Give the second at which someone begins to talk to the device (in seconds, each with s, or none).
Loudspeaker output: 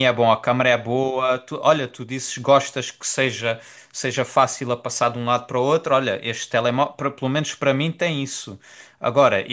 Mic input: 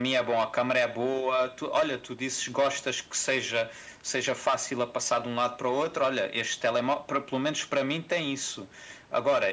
none